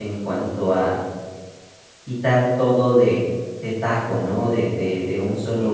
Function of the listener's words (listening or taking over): listening